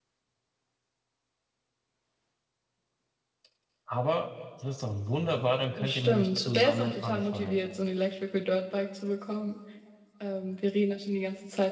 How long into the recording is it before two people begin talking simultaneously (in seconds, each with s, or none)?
5.8 s